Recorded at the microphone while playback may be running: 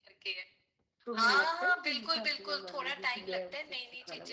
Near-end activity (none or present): present